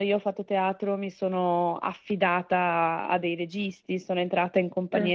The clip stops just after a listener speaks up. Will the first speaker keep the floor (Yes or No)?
Yes